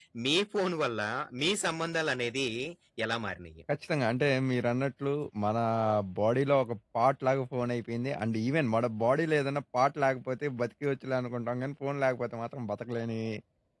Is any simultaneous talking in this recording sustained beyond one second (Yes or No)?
No